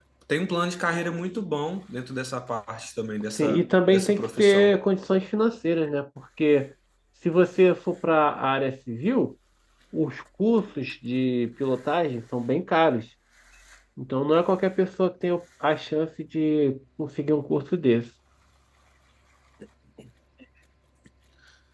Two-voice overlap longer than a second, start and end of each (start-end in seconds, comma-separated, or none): 3.4-4.7